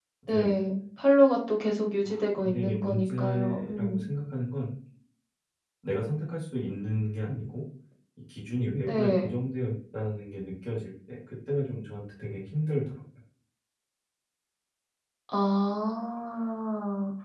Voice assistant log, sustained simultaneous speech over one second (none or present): present